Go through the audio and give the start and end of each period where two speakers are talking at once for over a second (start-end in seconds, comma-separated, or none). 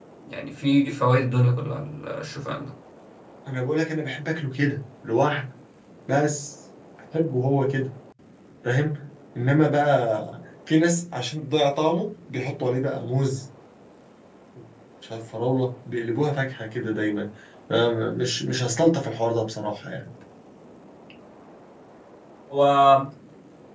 none